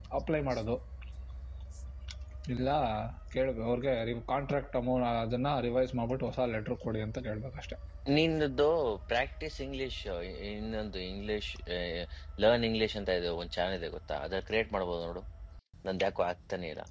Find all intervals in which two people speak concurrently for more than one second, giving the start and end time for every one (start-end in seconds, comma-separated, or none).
none